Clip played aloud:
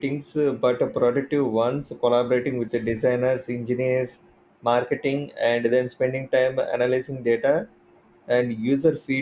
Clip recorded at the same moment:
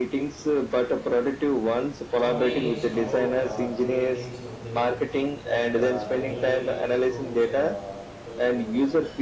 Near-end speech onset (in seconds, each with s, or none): 2.1 s